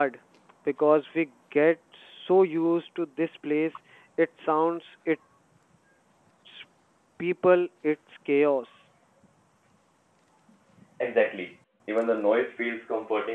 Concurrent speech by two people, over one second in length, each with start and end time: none

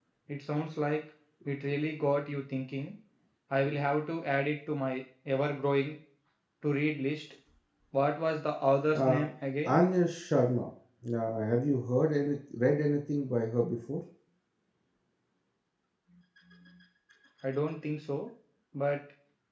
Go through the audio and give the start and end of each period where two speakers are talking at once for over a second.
none

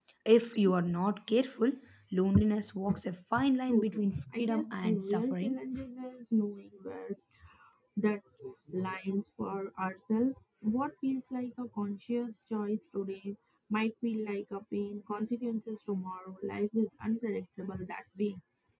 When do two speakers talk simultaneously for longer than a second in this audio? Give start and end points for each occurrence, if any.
3.7-5.6

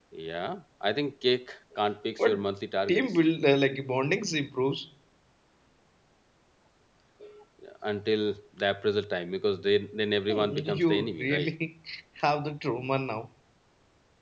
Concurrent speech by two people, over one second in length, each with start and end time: 10.3-11.5

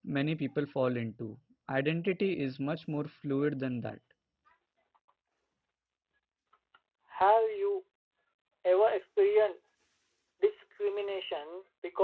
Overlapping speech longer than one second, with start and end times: none

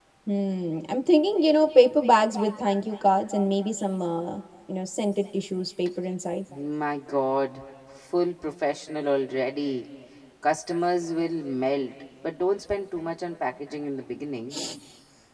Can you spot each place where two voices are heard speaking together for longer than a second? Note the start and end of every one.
none

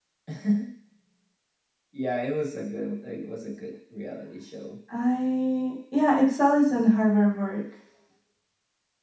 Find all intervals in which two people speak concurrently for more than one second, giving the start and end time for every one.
none

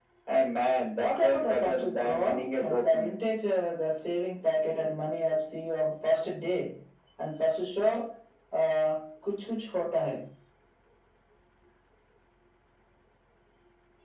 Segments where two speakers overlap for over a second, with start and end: 1.0-3.1

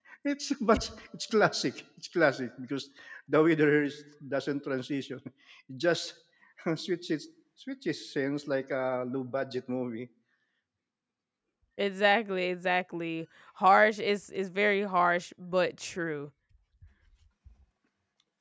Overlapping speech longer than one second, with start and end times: none

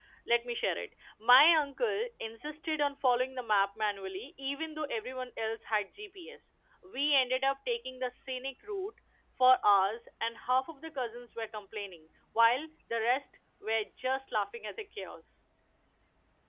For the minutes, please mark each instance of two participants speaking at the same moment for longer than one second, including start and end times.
none

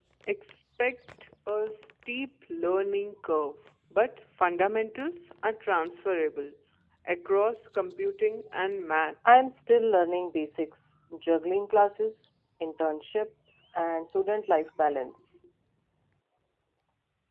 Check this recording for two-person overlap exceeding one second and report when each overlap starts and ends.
none

